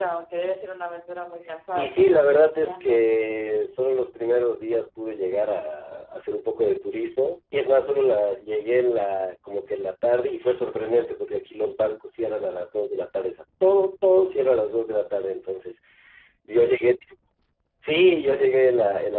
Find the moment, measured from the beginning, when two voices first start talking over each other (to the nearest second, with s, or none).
2 s